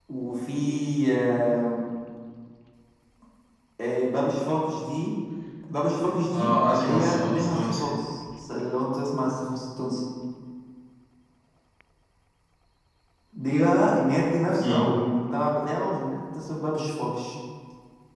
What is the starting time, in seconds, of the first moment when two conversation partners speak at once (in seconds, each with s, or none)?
6.3 s